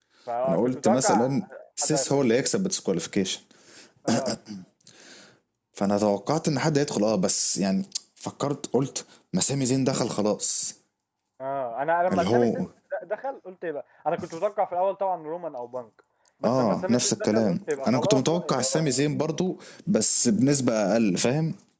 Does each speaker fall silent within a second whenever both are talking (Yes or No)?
No